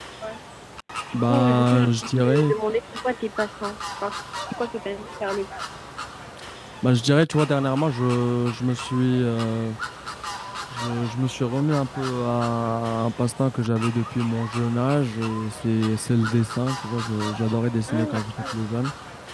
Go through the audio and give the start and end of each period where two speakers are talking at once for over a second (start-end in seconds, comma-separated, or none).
1.2-2.5